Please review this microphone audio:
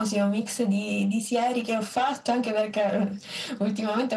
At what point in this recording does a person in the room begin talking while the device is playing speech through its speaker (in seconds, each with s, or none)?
none